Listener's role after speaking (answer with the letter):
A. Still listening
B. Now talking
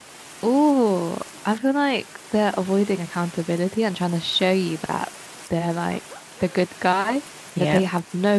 A